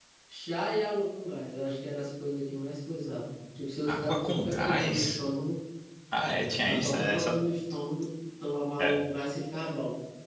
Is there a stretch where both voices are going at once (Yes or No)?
Yes